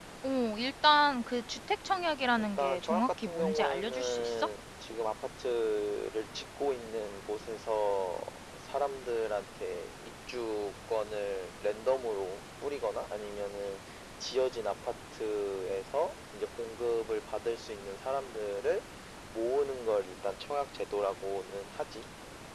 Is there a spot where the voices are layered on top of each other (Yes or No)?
Yes